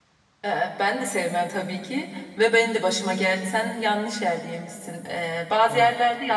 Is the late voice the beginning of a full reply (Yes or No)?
No